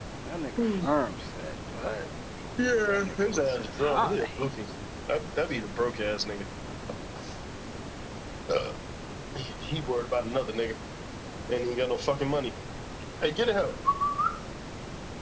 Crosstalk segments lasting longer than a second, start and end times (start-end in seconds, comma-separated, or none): 2.6-4.3